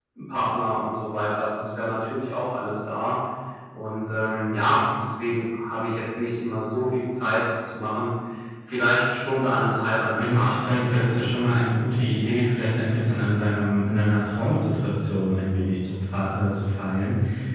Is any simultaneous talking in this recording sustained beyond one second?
Yes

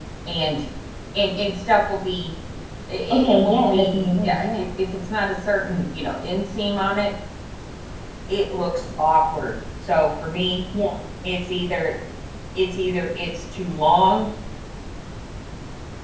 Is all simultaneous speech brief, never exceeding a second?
No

